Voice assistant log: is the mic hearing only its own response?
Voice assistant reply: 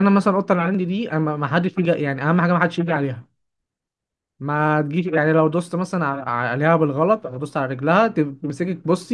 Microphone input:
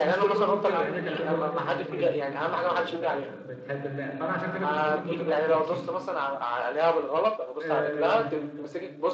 No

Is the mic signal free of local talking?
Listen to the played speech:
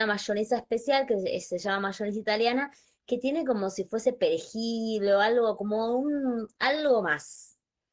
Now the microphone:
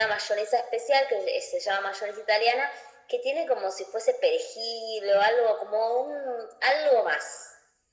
Yes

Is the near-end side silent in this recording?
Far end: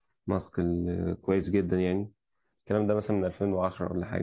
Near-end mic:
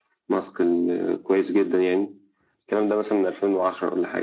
Yes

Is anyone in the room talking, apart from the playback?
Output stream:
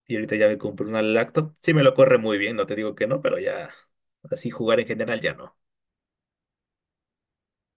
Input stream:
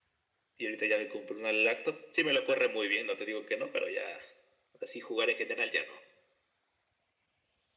No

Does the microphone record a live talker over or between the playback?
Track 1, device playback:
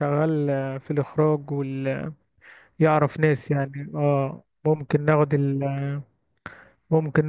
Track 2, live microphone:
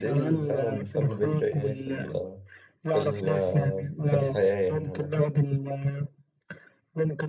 Yes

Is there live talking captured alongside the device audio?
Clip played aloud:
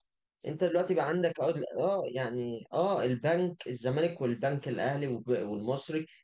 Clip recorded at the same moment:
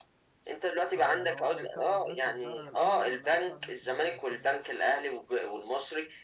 Yes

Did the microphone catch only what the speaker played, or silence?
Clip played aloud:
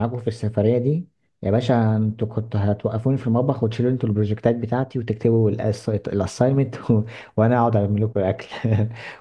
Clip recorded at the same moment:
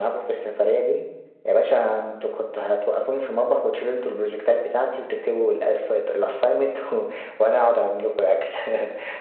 Yes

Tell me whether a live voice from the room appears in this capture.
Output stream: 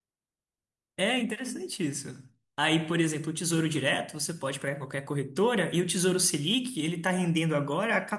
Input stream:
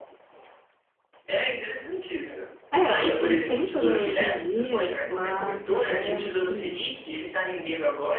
Yes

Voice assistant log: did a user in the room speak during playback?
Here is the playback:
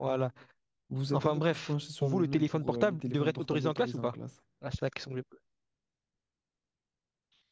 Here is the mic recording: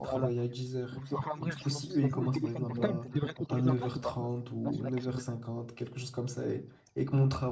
Yes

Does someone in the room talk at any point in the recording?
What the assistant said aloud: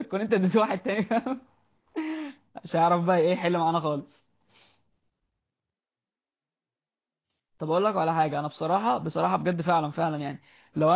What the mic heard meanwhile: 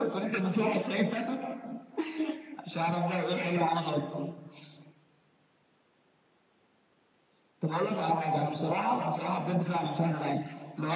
No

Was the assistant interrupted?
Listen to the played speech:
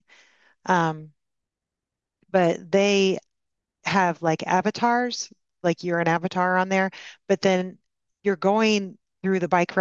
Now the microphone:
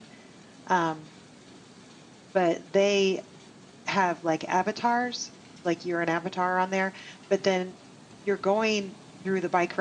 No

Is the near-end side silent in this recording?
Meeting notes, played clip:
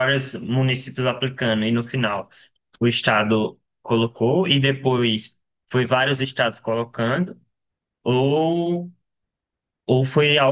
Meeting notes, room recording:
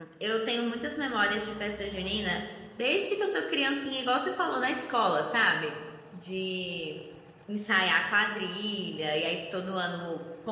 No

